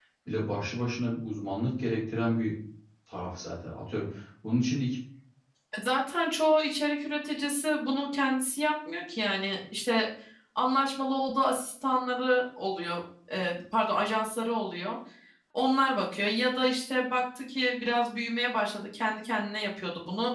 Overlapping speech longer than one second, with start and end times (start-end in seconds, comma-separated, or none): none